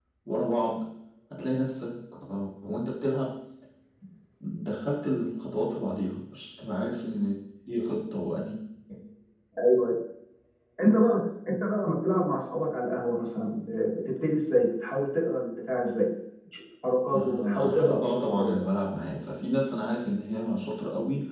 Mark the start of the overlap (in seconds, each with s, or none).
17.1 s